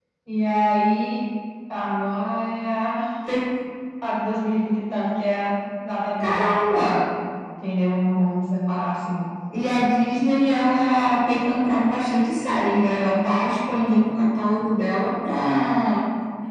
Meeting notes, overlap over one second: none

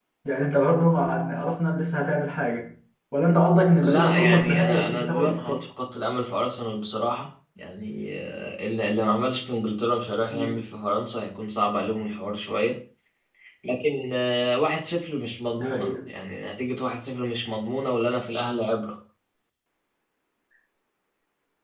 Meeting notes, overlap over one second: present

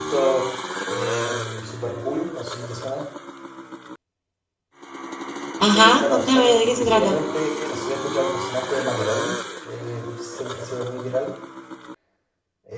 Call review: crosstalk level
present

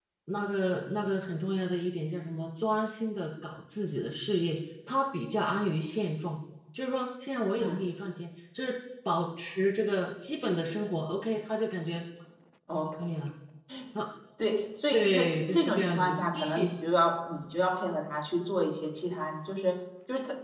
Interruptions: present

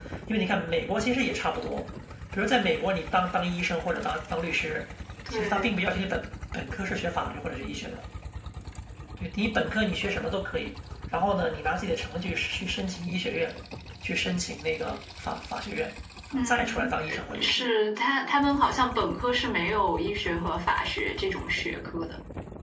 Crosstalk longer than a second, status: present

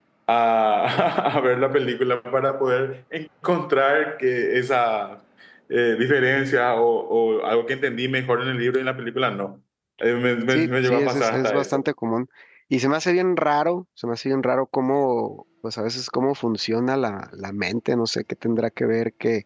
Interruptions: present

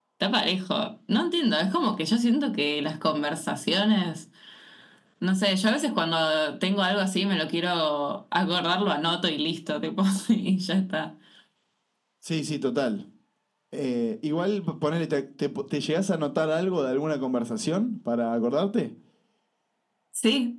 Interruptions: none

